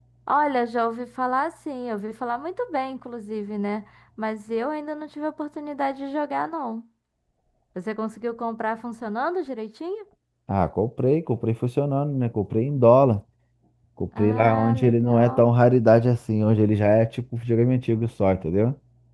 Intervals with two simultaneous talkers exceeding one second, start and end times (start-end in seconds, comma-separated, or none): 14.2-15.5